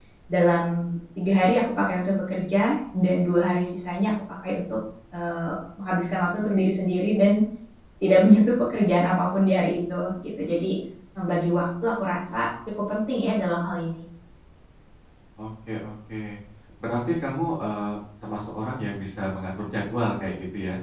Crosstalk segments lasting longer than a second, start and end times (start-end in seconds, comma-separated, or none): none